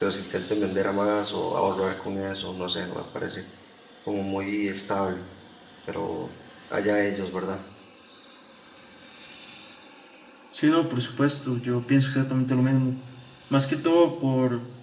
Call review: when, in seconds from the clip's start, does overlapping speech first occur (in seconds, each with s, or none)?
none